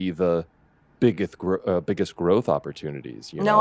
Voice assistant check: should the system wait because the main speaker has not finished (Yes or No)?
No